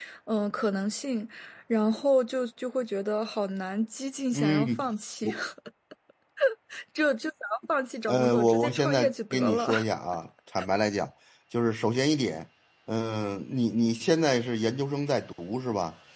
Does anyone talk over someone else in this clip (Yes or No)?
Yes